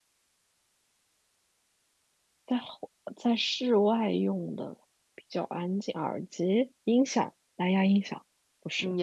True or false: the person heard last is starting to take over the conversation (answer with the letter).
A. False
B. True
B